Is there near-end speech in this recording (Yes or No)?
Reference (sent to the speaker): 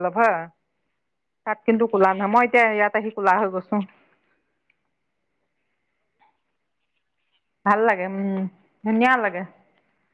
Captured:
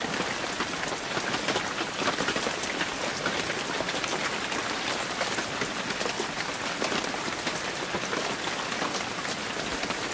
No